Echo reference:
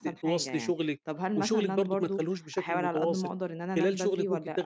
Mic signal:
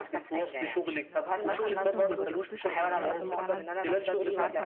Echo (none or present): present